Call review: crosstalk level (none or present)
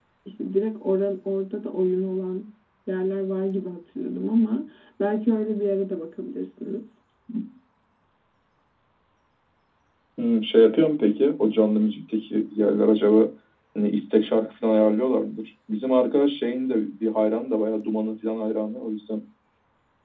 none